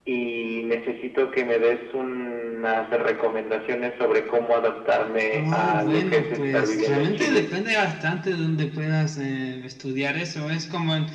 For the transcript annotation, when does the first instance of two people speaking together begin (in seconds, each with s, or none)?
5.3 s